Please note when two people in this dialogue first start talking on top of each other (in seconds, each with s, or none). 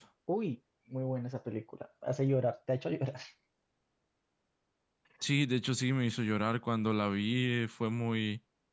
none